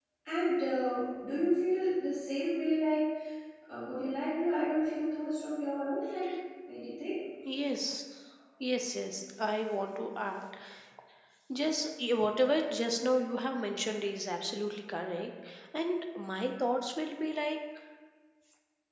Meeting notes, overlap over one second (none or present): none